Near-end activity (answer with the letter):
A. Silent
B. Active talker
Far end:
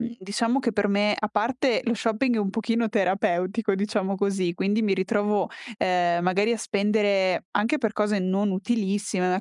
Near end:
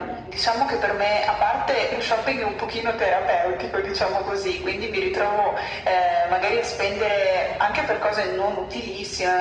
A